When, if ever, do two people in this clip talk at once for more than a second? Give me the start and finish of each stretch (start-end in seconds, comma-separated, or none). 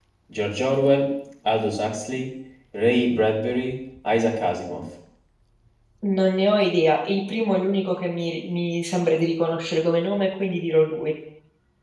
none